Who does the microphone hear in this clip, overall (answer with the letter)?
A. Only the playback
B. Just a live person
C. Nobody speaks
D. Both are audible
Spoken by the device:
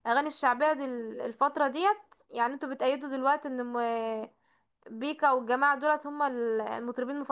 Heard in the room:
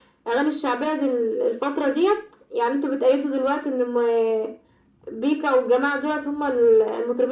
A